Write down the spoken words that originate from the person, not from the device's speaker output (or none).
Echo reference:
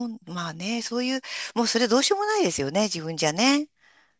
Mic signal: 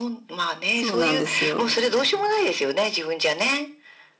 そうなんですよ。